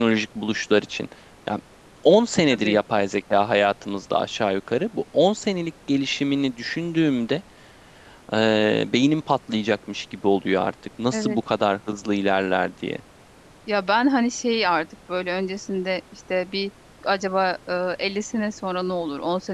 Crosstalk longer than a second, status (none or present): none